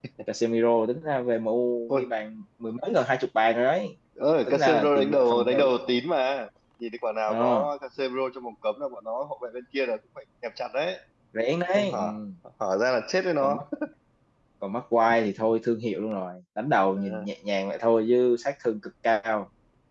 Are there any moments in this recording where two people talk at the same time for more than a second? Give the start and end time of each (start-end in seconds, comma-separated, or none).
4.5-5.7